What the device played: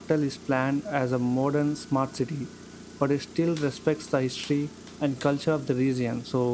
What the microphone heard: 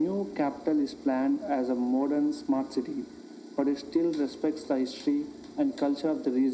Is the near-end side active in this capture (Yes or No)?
No